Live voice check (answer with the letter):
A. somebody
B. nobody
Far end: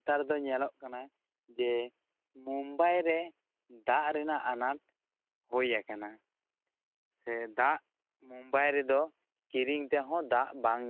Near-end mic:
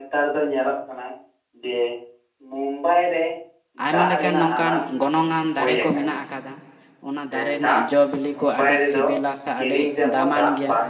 A